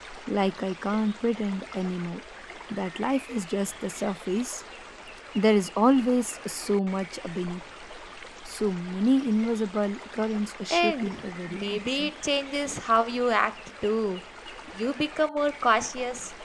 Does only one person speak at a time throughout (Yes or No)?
No